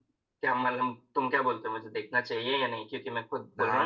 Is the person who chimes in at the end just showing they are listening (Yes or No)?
No